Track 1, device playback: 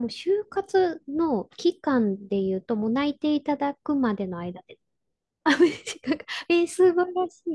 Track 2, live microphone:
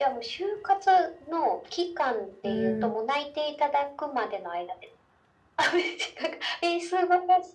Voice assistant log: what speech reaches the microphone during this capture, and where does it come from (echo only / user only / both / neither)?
both